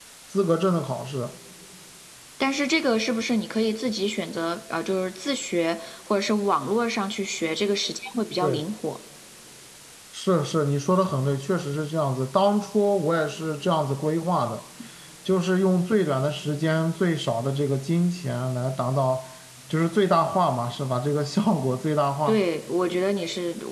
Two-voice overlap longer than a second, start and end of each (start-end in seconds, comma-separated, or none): none